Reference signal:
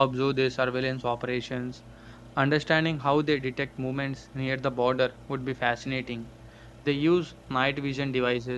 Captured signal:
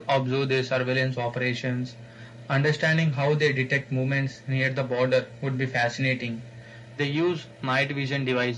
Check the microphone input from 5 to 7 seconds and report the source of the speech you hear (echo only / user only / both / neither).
echo only